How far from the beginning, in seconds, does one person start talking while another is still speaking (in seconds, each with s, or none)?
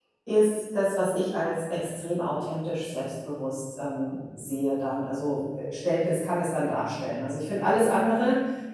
none